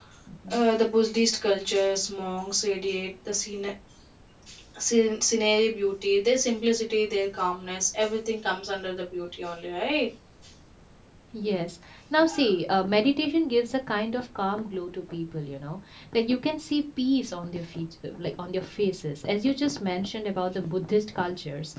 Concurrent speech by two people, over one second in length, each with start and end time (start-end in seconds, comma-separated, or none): none